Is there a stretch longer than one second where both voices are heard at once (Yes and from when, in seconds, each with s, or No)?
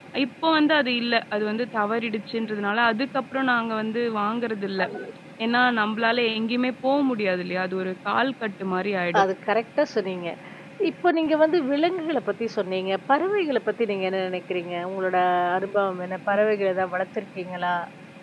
No